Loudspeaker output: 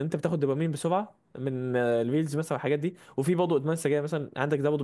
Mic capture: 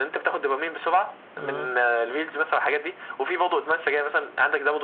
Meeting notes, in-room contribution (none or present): present